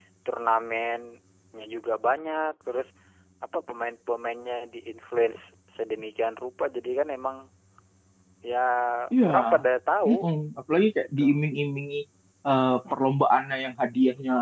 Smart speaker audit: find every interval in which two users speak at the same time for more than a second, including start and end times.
none

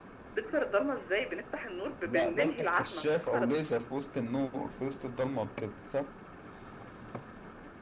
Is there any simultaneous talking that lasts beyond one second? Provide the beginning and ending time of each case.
2.0-3.5

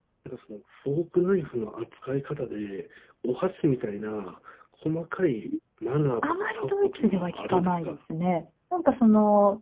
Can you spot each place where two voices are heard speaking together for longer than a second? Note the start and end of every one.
6.2-8.0

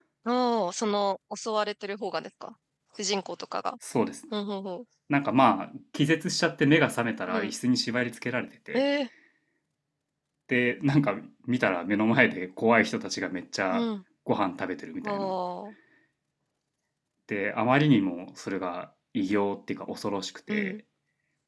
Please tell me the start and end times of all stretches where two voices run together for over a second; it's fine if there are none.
none

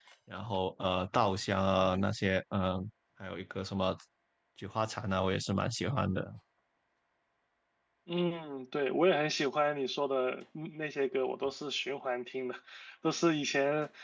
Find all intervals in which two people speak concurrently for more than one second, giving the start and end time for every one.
none

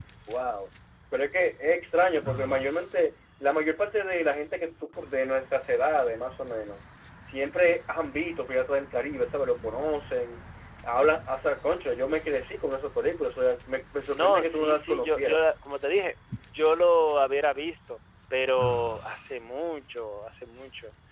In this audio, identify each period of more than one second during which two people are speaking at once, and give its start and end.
14.1-15.4

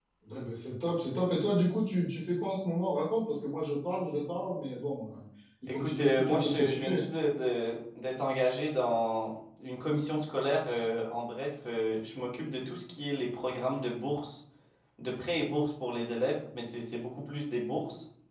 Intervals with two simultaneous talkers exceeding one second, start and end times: 5.7-7.0

